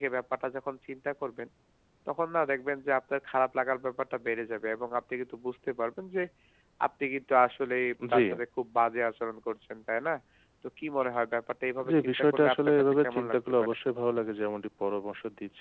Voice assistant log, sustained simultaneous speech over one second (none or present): present